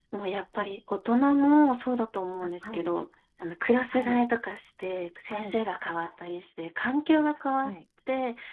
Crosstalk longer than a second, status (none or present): none